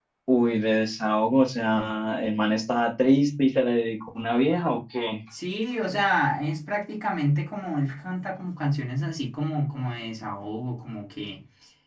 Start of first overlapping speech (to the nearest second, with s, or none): none